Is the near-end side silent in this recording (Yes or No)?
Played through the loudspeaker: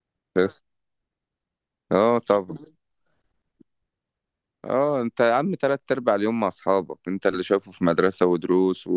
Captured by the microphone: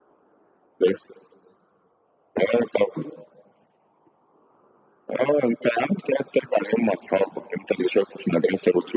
Yes